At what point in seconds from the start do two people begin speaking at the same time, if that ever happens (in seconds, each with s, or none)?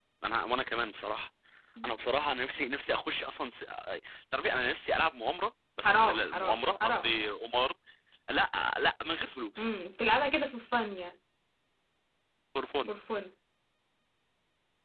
5.8 s